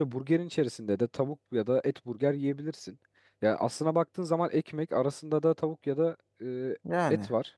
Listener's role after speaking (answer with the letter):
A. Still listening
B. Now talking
A